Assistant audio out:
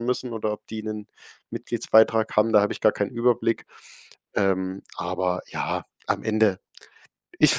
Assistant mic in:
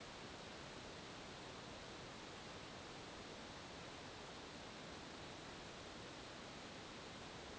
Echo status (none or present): none